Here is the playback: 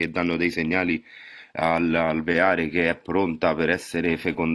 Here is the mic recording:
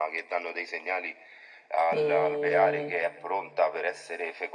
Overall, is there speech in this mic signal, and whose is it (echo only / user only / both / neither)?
both